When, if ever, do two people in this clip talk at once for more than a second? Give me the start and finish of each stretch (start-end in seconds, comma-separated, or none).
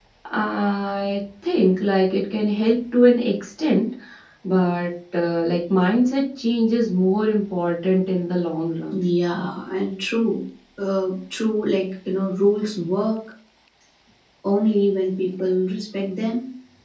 none